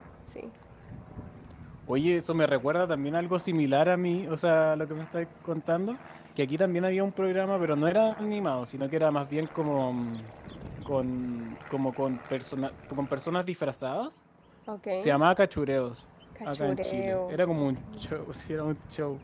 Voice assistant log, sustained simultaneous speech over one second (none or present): present